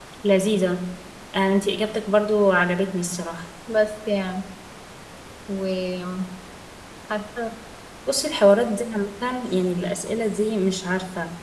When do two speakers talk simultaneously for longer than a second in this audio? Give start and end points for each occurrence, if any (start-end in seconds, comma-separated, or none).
none